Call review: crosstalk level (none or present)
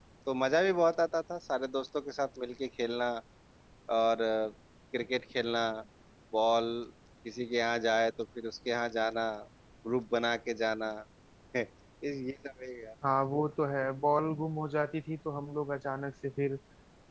none